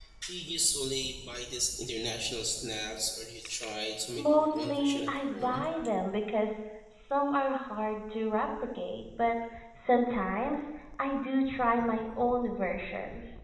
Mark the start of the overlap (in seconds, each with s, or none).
4.2 s